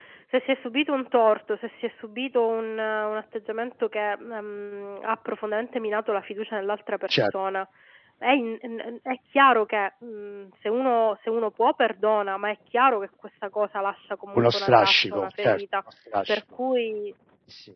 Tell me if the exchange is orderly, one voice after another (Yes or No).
No